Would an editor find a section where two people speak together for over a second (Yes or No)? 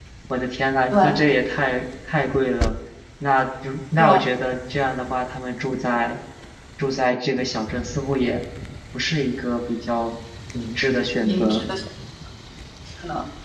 No